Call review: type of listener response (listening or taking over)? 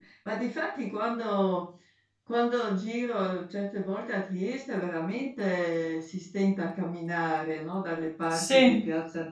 listening